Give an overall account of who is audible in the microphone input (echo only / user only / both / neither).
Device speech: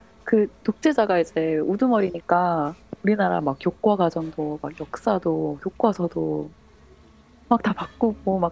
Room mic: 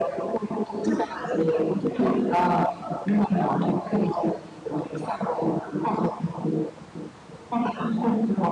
echo only